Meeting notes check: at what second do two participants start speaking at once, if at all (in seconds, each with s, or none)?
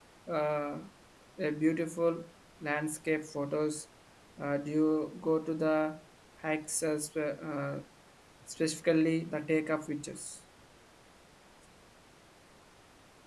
none